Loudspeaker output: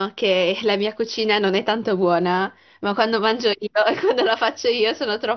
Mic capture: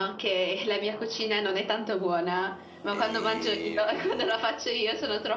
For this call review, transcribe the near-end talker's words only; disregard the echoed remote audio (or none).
E, mm,